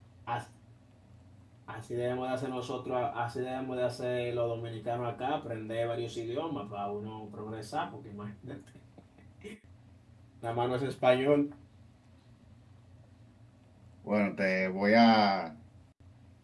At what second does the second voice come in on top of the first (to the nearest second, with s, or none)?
none